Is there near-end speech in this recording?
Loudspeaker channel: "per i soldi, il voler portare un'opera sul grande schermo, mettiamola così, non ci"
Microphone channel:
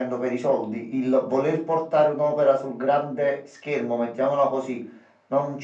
No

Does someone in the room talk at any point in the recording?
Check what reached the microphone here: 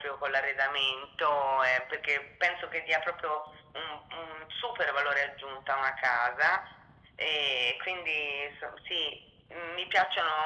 No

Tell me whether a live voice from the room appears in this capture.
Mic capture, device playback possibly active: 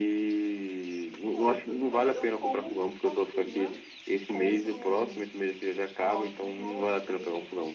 Yes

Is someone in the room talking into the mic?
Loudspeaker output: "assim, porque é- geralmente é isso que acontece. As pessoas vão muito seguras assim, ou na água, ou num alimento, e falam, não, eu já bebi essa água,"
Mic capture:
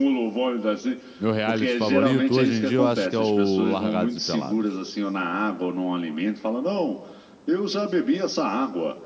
Yes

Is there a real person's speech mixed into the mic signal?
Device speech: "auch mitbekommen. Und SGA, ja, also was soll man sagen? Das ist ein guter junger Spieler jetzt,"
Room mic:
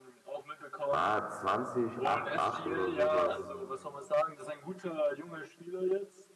Yes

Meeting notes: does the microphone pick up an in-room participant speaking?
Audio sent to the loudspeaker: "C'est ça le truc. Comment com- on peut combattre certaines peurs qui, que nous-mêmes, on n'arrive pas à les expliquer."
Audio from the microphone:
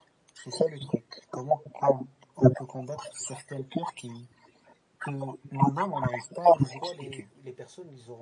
Yes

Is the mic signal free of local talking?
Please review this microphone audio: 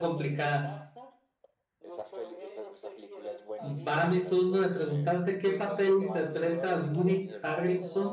No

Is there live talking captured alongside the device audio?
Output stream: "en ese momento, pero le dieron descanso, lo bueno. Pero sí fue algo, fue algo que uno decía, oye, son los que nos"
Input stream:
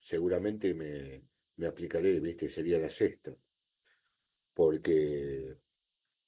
Yes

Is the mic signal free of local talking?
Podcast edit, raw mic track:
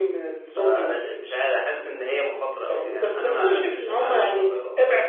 Yes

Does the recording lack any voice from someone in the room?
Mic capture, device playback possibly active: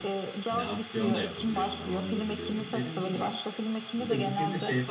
No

